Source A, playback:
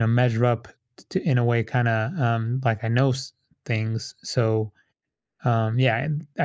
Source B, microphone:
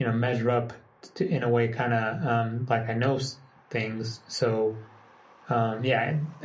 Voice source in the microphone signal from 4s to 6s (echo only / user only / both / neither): echo only